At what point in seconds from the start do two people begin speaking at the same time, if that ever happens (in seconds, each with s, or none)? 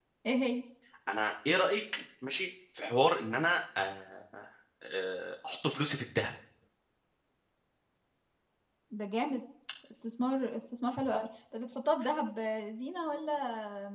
none